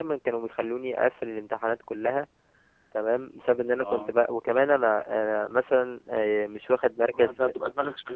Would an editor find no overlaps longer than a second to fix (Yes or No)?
Yes